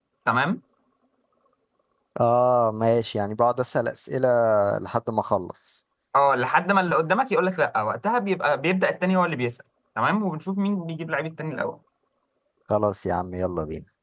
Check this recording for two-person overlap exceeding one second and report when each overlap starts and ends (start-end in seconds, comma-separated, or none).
none